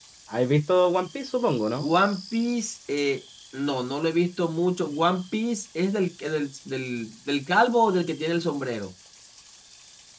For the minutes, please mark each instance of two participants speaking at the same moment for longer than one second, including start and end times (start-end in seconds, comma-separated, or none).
none